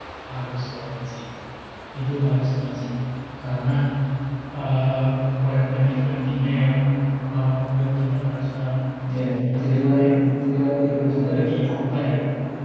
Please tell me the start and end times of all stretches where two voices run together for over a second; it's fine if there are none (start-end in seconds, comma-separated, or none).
10.9-12.1